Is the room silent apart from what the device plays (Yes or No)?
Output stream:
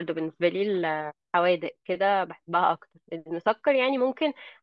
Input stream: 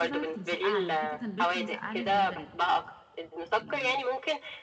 No